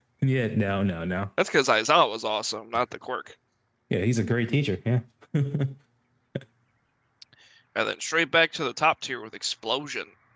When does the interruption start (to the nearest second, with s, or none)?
none